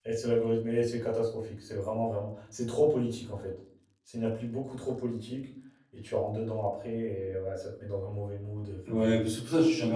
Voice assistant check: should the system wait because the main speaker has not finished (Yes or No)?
No